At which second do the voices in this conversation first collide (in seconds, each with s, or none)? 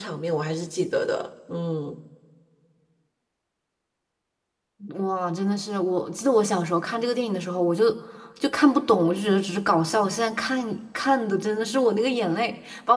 none